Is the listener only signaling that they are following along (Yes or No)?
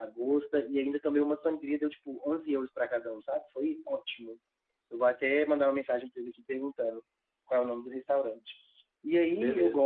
Yes